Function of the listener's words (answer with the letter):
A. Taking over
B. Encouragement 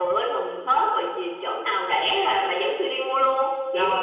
A